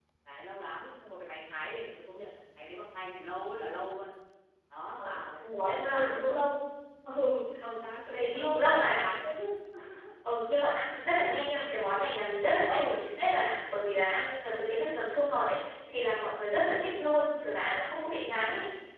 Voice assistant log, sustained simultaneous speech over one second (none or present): present